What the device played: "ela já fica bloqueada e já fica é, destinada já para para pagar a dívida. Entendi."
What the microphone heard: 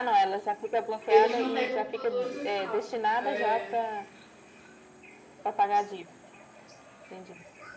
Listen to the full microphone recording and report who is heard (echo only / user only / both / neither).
both